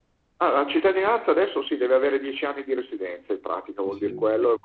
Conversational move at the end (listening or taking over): listening